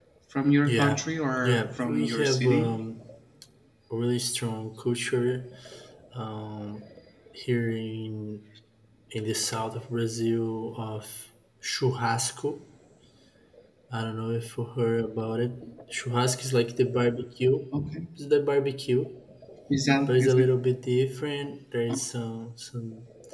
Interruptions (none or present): present